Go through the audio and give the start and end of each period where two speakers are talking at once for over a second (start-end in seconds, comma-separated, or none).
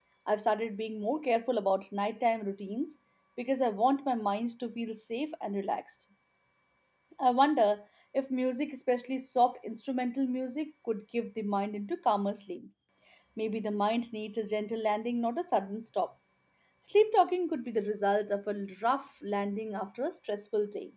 none